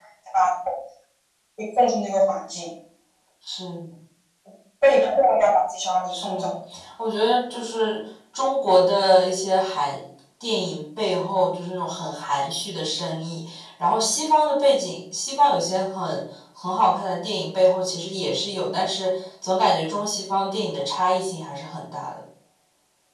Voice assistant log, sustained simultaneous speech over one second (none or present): none